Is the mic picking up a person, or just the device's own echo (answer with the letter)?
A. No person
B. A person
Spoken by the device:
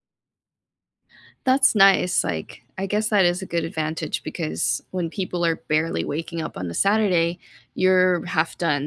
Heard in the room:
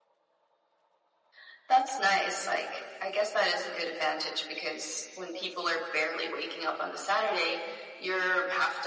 A